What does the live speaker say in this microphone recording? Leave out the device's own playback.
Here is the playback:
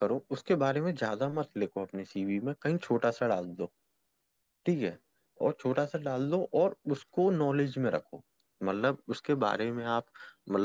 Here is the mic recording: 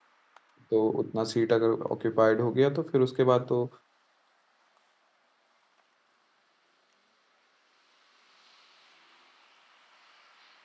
तो उतना सीट अगर ऑक्यूपाइड हो गया तो फिर उसके बाद तो

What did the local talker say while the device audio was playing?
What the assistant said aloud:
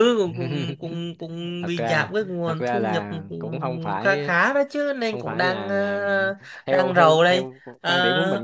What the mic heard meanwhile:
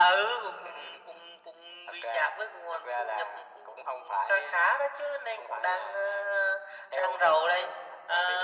none

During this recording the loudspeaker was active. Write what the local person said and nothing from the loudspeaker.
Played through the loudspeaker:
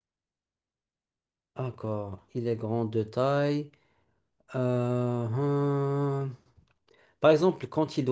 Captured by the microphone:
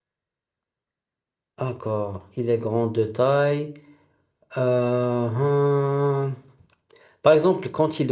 none

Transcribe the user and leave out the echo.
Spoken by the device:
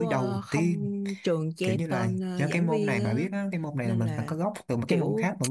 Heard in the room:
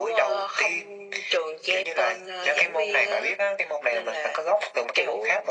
none

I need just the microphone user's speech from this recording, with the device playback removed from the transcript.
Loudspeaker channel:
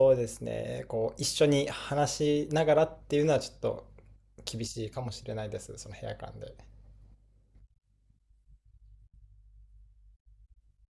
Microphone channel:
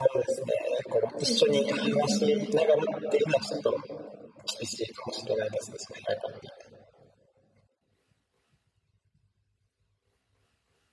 そうですね。いいですね。

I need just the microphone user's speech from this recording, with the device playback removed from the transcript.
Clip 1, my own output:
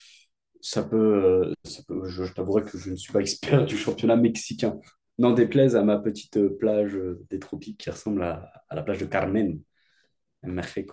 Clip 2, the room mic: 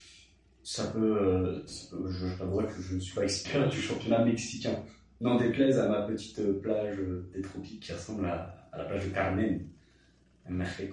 none

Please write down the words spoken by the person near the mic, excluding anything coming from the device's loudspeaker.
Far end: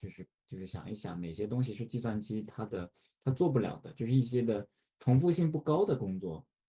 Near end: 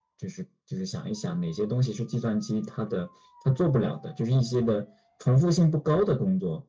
none

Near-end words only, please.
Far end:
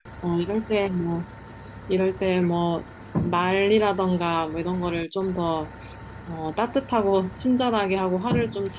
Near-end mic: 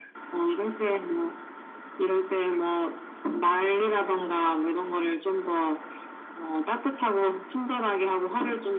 none

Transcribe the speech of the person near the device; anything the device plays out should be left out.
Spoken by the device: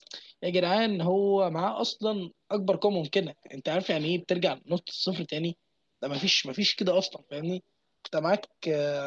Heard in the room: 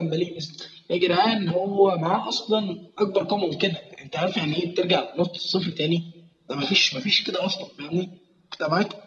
none

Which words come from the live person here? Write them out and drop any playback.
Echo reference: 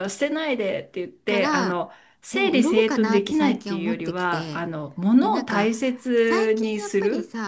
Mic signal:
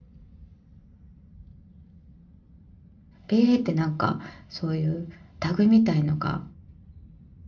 ペーってなんかそういうタグみたいのが

